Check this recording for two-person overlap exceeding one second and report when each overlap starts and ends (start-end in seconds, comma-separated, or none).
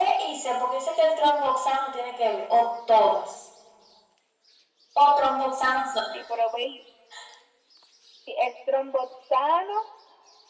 none